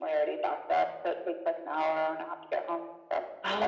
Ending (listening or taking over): taking over